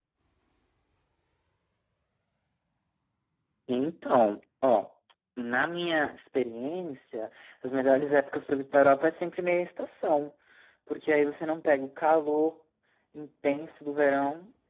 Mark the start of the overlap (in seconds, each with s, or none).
none